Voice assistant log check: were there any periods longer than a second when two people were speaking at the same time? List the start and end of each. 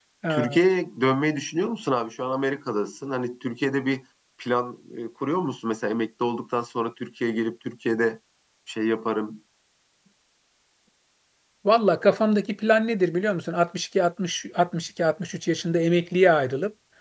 none

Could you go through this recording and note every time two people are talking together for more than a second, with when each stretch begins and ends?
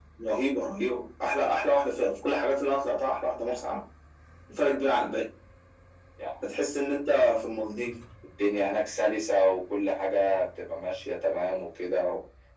none

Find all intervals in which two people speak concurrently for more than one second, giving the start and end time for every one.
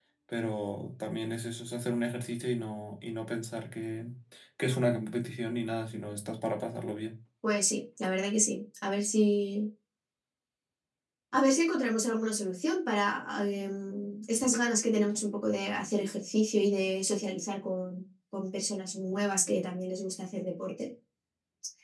none

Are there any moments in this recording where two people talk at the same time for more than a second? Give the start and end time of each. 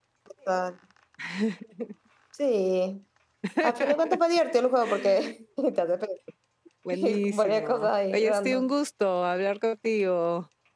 6.9-8.7

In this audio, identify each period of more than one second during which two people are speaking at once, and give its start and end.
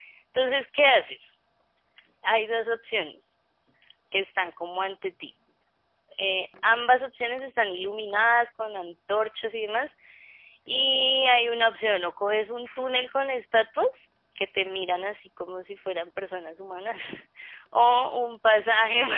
none

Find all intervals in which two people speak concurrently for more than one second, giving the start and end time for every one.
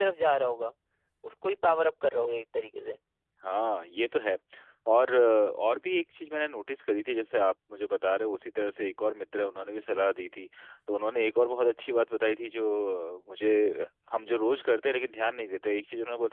none

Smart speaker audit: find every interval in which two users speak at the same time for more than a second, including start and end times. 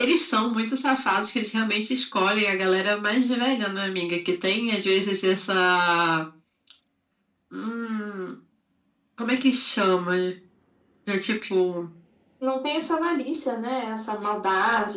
none

